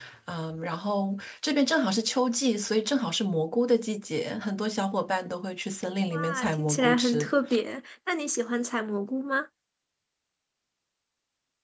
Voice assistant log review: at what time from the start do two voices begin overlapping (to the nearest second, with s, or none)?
6 s